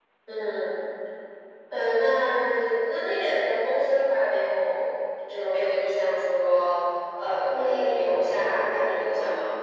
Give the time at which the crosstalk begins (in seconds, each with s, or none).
7.5 s